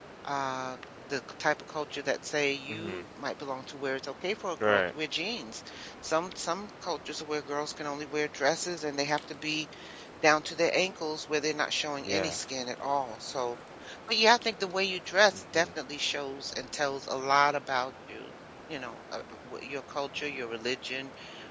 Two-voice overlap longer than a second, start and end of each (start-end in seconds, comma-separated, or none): none